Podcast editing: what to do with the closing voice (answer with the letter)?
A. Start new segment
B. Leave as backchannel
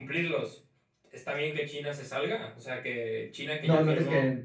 A